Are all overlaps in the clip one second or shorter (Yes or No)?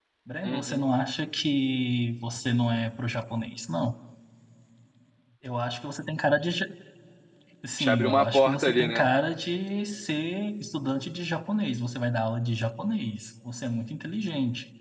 No